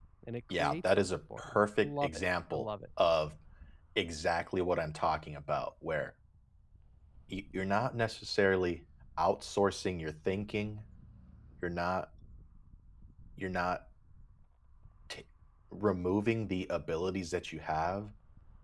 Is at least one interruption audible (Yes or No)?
Yes